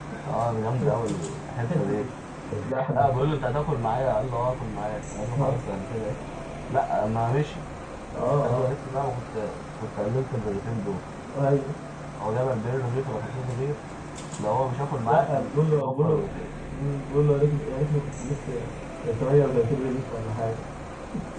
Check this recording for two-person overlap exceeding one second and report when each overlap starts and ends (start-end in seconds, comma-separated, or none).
15.0-16.3